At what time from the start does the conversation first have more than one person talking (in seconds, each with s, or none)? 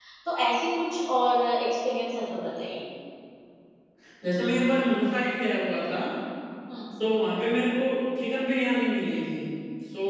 none